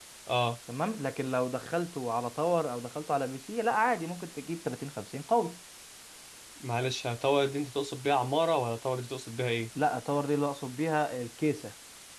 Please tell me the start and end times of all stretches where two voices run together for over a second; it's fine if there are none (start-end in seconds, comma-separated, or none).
none